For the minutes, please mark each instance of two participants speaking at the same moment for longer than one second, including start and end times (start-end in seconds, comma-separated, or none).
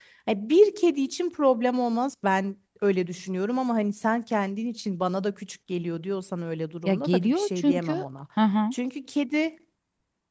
6.8-8.0